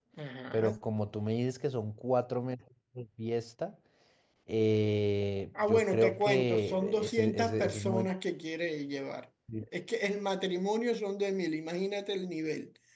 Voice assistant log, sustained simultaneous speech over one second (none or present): present